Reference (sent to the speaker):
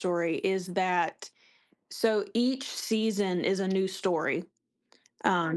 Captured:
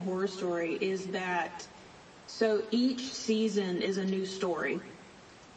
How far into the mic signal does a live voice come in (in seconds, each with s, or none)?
none